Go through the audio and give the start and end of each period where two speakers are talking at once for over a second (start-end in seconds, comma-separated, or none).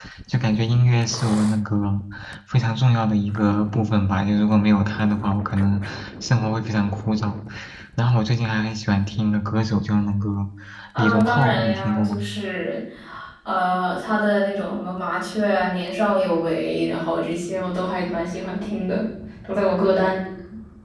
11.0-12.2